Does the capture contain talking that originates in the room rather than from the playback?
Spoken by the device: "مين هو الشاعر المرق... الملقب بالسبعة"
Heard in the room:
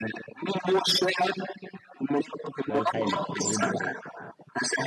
Yes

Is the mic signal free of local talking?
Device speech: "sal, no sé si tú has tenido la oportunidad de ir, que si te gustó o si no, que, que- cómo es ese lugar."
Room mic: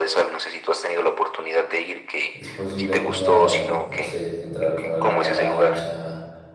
No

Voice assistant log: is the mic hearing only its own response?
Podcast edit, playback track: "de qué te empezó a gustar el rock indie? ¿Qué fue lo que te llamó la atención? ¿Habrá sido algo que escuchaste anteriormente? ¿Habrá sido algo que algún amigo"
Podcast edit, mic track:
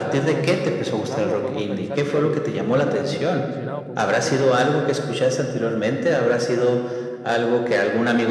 No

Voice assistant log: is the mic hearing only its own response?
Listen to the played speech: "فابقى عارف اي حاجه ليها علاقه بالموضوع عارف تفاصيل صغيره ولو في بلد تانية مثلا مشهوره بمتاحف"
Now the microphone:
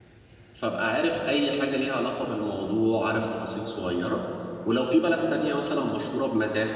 Yes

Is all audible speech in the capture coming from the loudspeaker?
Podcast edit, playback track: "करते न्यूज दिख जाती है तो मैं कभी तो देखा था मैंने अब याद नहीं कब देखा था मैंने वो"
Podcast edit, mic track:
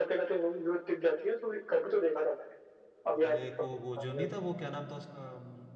No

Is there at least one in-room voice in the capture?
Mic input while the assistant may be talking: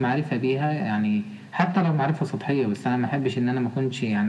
No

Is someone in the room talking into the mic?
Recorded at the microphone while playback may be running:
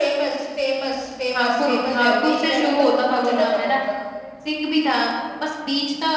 Yes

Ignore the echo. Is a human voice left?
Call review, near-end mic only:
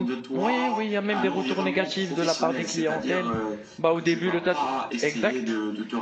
Yes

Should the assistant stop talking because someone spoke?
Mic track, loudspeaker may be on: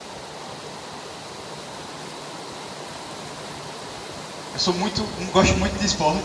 Yes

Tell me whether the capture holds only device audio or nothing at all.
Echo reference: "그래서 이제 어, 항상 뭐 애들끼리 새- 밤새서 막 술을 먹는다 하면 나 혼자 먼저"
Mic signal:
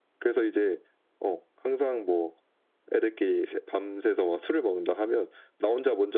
Yes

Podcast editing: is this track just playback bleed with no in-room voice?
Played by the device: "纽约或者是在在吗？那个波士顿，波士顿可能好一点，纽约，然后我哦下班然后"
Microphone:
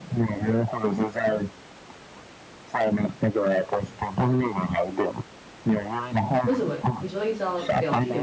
No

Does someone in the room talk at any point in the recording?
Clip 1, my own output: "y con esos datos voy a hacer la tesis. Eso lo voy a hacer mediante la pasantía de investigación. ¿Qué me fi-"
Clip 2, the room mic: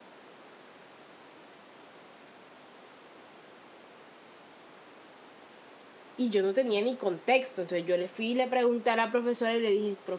Yes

